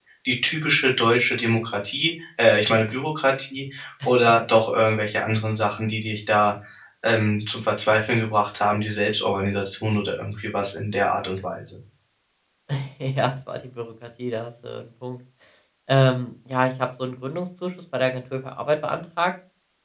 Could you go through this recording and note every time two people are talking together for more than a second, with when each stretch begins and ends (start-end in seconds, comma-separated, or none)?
none